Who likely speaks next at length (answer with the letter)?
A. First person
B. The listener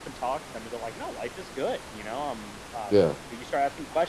A